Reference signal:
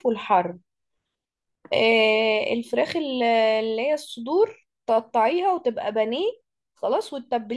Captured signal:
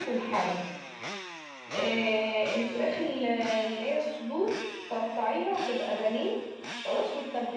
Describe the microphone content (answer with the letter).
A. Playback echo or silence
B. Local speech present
A